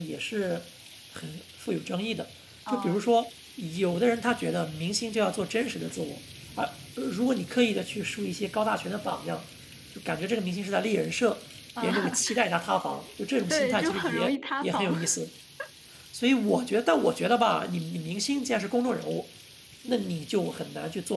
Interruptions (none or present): present